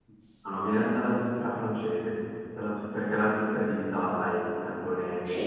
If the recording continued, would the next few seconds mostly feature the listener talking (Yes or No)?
No